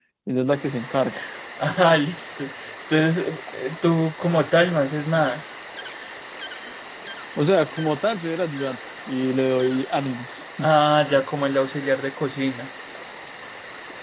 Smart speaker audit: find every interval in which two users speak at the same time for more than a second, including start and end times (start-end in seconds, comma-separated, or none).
none